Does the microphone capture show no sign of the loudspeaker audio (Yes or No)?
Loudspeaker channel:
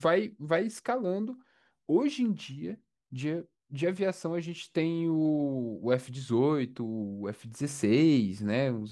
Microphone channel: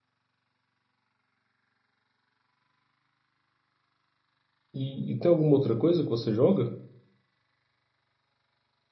Yes